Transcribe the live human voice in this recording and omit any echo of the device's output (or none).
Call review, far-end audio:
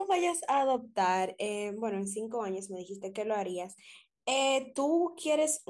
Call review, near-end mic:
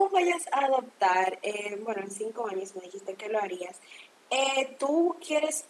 none